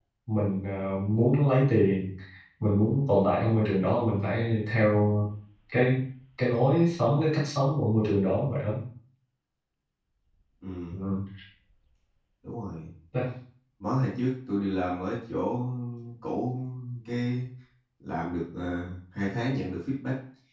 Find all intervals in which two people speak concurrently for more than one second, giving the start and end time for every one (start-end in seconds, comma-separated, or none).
none